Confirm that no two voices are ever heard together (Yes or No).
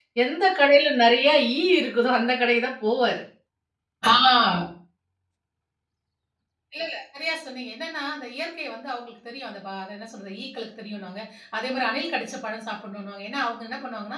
Yes